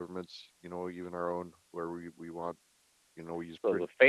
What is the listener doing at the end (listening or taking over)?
taking over